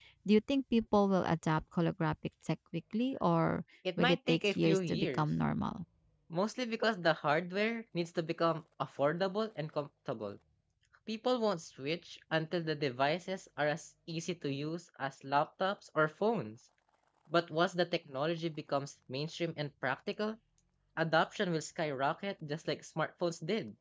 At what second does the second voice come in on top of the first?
4 s

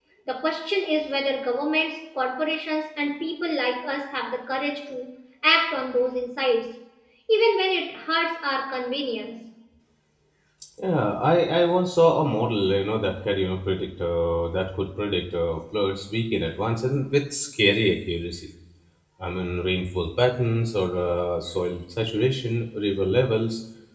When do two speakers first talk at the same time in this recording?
none

